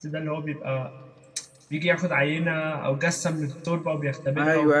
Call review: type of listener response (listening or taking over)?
taking over